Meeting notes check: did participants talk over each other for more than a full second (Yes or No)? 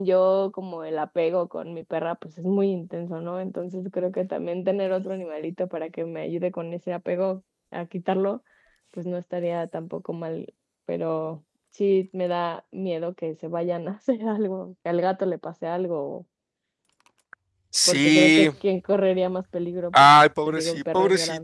Yes